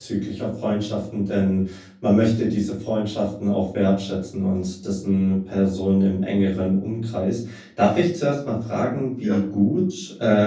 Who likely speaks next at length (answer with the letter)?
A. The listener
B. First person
B